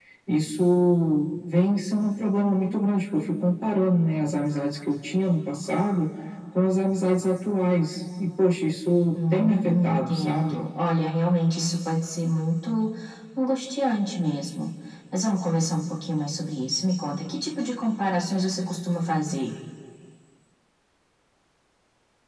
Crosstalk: present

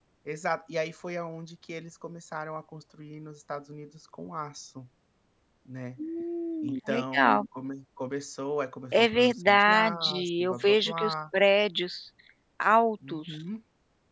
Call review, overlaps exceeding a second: present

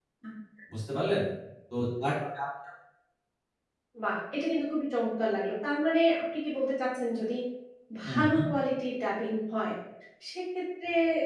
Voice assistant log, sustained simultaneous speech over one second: none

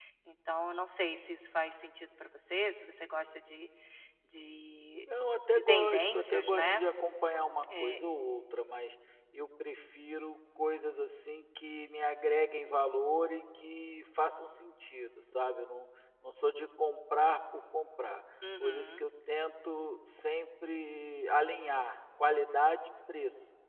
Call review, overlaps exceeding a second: present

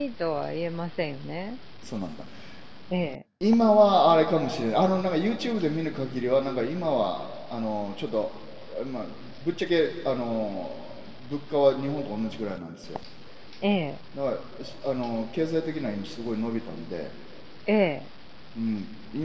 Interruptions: none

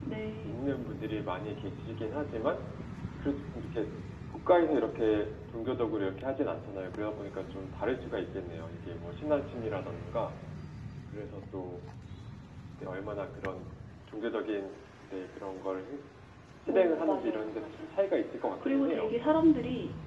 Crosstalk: present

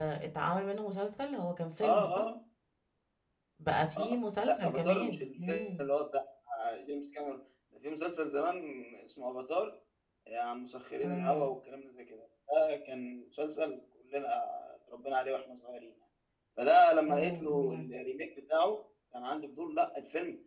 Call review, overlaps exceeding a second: present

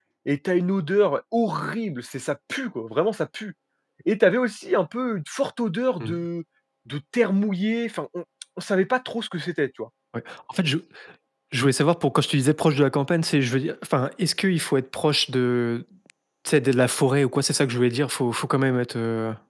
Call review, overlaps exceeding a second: none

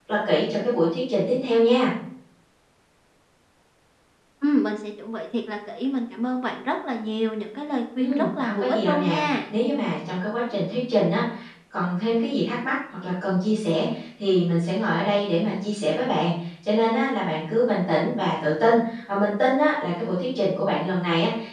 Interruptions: present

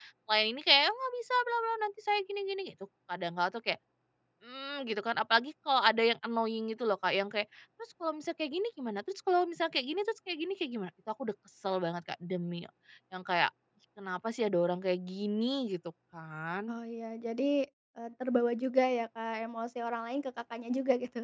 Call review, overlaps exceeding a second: none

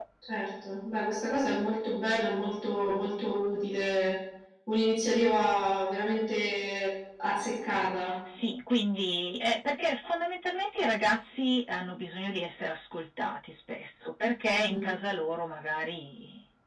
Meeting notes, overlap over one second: none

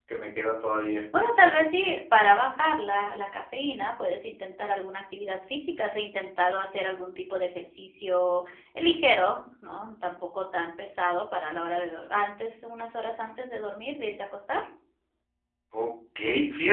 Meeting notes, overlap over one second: none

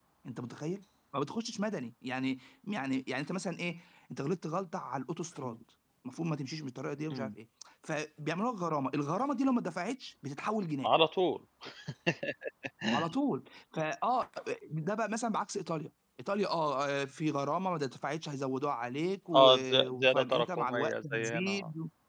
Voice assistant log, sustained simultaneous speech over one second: present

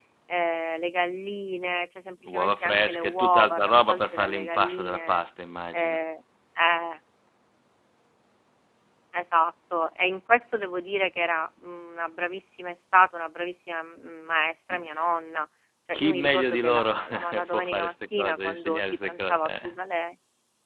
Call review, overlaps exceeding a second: present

